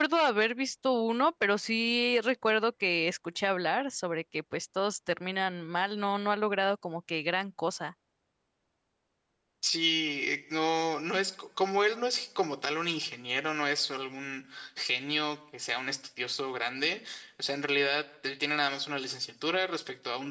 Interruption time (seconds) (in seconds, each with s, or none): none